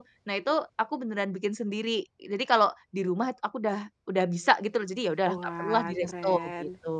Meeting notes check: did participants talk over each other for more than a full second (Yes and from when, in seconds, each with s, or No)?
Yes, from 5.3 s